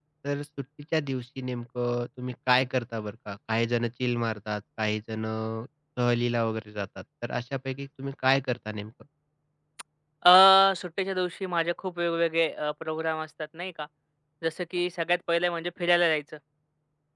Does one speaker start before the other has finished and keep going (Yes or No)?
No